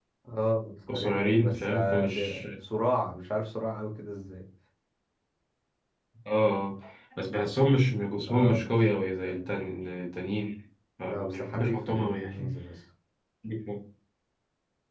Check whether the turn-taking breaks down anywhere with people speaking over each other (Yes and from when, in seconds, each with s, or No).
Yes, from 0.9 s